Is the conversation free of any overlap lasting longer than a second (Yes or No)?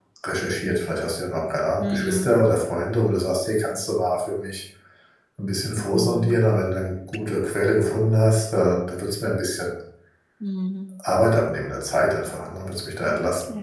Yes